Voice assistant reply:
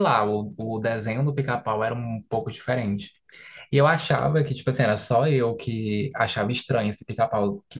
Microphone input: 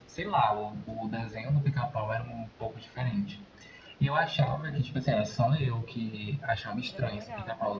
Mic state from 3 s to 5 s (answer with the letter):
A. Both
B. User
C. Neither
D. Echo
D